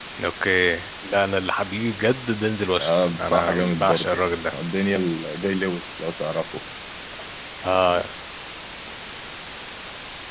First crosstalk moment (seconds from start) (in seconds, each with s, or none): 2.8 s